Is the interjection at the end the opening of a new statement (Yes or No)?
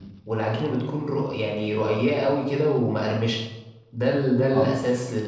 No